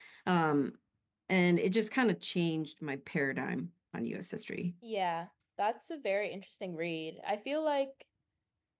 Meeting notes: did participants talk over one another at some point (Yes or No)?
No